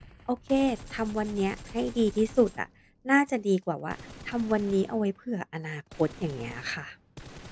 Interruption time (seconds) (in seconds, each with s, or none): none